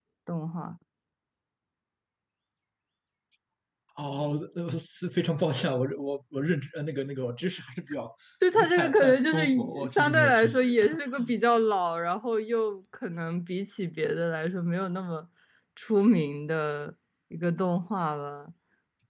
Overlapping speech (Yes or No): Yes